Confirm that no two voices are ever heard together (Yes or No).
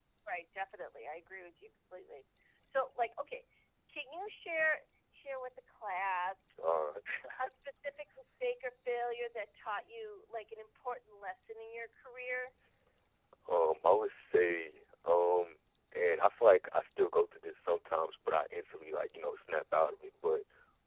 Yes